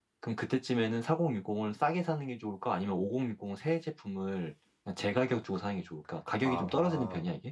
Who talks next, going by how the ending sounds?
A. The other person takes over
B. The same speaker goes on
A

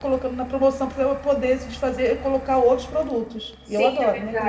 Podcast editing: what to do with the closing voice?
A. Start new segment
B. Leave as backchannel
A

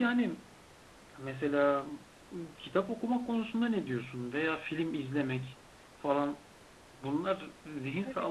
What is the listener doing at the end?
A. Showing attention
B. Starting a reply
A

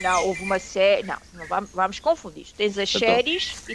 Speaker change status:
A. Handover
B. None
B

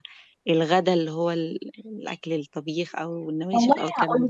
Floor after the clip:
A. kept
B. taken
B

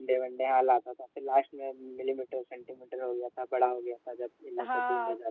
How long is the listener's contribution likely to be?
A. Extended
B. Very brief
A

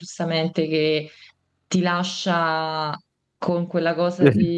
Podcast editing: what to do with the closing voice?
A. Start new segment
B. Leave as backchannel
B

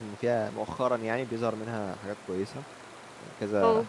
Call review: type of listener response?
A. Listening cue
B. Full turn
A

